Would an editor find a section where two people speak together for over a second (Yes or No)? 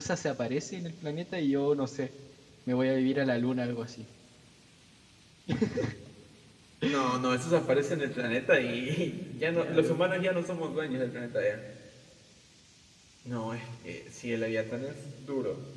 No